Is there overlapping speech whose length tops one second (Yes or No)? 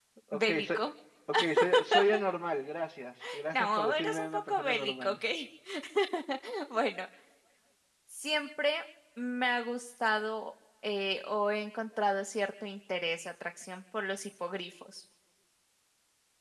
Yes